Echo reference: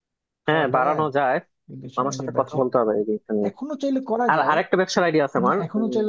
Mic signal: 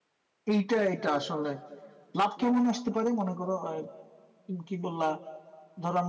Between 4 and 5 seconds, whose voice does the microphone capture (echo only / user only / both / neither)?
user only